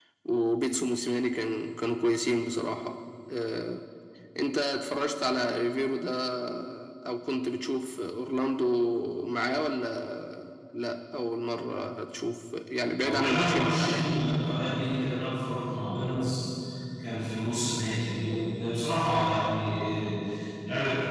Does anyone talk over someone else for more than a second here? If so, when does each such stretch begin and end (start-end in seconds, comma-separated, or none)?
13.0-14.4